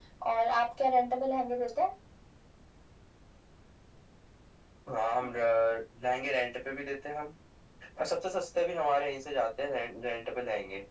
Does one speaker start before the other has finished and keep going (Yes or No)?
No